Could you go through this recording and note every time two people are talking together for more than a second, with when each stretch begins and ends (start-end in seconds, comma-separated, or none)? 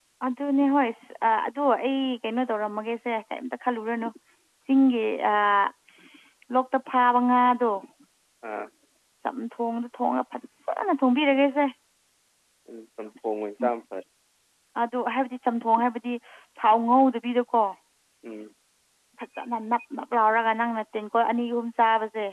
none